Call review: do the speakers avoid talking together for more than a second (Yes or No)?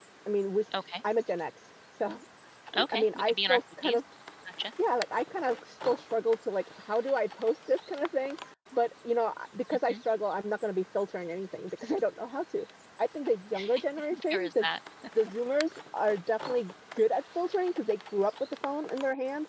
No